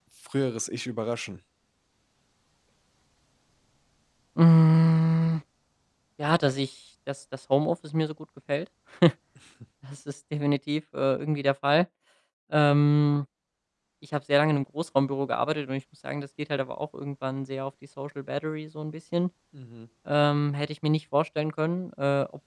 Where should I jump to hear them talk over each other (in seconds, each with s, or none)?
none